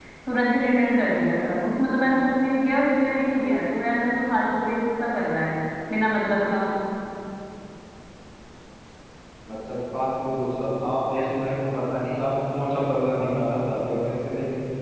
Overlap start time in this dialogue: none

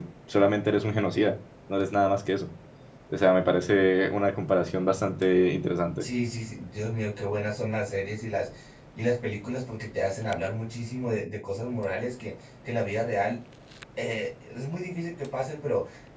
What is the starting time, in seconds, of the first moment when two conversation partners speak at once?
none

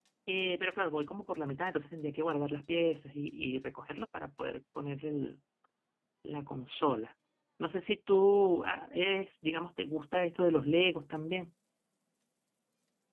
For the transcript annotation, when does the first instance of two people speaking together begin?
none

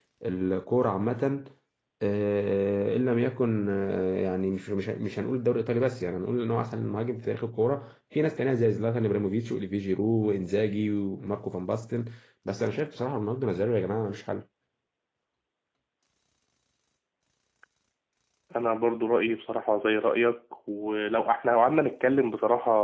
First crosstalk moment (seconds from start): none

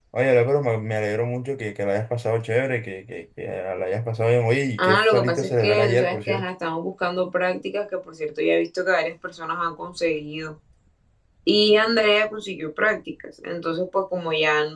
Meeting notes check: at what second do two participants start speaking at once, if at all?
4.8 s

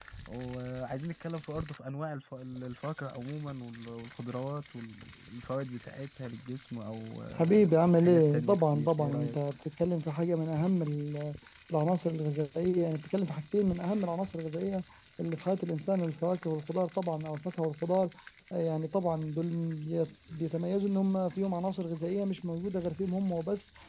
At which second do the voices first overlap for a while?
7.4 s

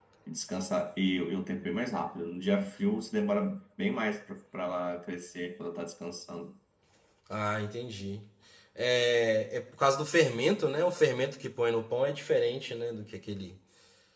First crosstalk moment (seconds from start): none

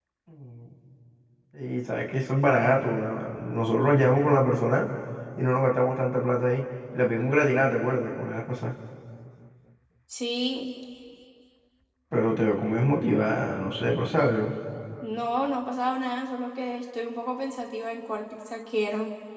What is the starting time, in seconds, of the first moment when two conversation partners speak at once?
none

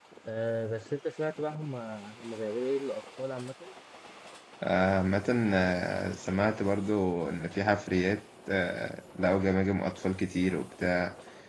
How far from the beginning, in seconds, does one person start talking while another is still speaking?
none

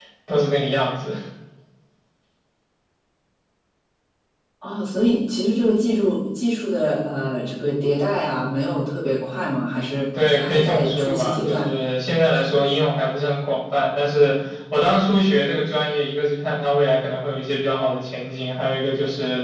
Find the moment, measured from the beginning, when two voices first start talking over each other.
10.1 s

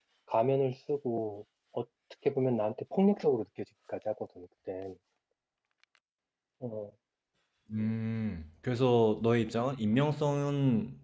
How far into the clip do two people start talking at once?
none

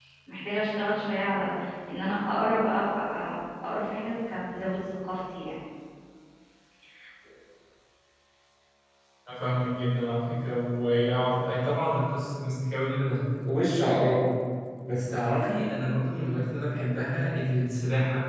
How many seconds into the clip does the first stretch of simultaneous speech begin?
none

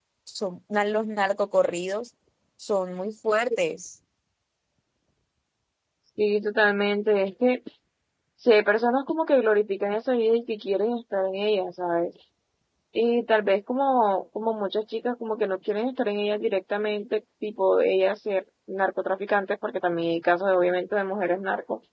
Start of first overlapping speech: none

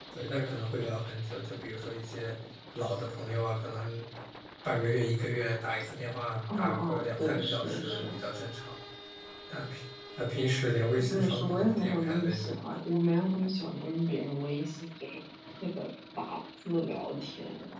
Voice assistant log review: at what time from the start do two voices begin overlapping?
6.5 s

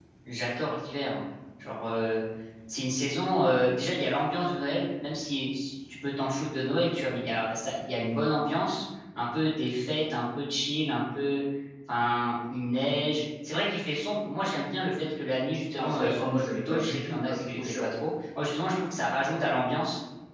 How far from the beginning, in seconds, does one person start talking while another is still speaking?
15.8 s

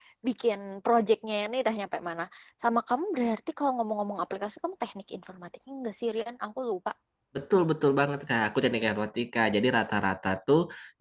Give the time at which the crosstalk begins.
none

